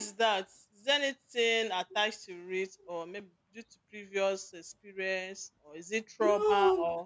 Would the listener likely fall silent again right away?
No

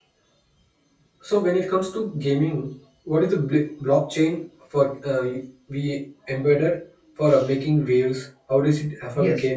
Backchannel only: No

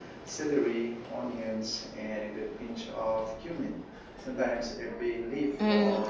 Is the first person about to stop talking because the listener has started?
Yes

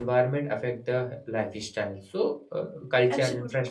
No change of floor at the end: Yes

